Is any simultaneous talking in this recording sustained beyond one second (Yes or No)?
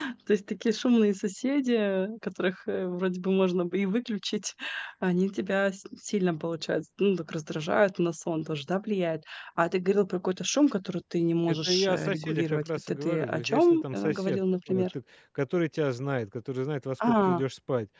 Yes